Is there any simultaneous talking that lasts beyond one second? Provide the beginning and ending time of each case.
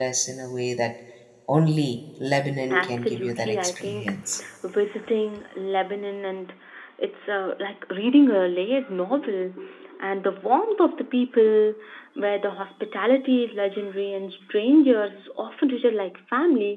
2.7-4.2

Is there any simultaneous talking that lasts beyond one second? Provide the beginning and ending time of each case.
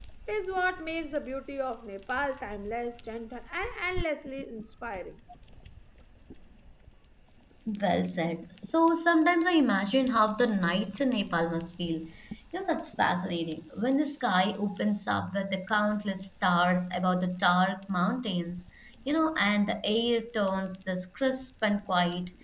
none

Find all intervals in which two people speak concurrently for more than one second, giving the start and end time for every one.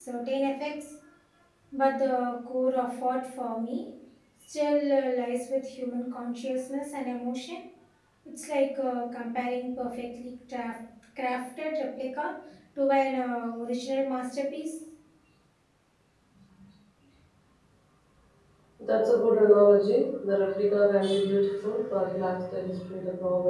none

